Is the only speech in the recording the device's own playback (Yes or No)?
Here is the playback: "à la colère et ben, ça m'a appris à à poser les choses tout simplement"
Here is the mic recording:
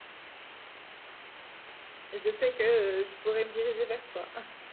No